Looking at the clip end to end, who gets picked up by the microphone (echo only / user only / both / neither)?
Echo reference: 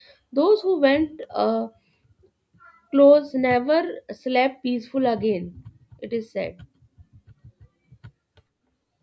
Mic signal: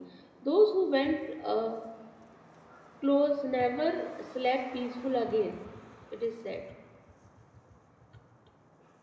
echo only